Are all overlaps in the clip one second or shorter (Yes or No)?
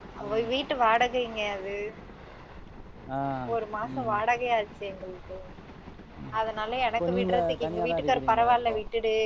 No